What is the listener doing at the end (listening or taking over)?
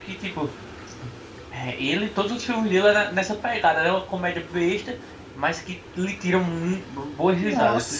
taking over